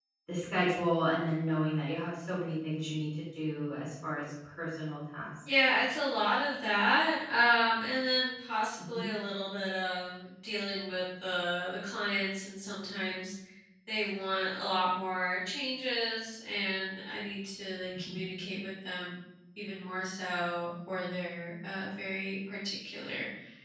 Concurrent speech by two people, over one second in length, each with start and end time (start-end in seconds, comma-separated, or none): none